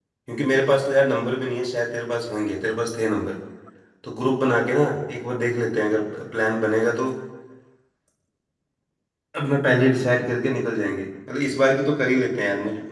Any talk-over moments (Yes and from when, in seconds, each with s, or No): No